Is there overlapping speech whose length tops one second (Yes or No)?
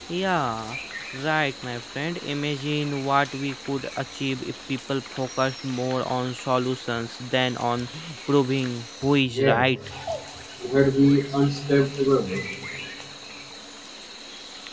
No